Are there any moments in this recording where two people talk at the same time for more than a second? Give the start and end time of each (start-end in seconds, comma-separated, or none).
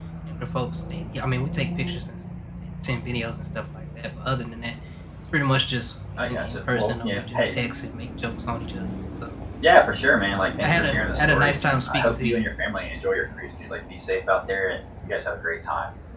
6.2-7.5, 10.6-12.4